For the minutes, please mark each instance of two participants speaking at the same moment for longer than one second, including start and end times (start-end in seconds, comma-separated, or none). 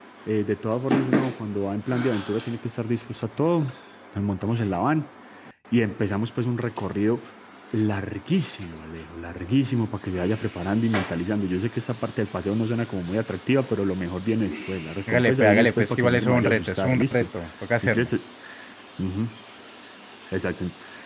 15.1-17.3